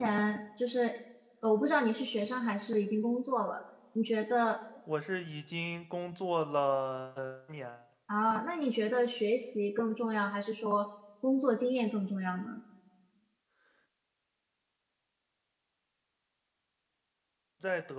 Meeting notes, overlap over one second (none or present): none